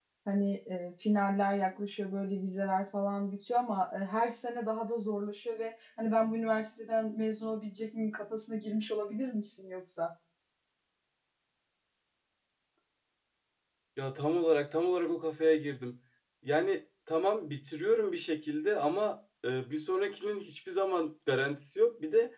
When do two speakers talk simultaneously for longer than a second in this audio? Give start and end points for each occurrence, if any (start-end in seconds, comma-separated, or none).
none